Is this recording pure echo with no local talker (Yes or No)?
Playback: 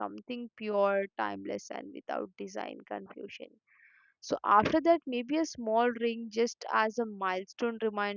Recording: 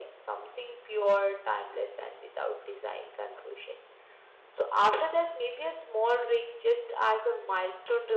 Yes